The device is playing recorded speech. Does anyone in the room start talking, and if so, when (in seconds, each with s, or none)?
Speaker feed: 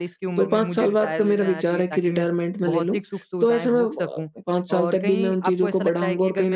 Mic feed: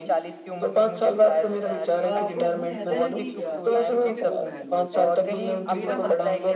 2.0 s